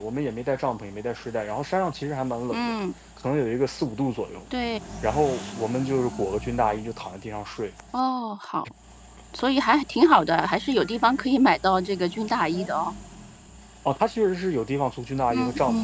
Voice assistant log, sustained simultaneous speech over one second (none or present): none